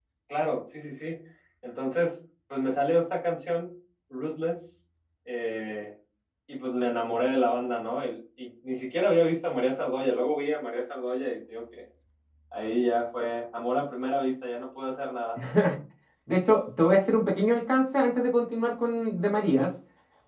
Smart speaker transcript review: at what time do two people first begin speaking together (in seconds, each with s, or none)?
none